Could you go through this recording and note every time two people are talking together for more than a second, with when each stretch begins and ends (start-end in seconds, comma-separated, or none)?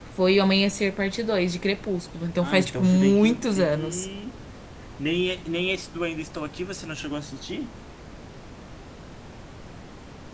2.4-4.1